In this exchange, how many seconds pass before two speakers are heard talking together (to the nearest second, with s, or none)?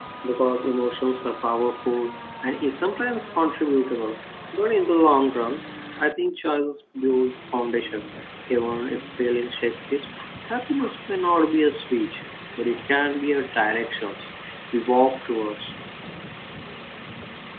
none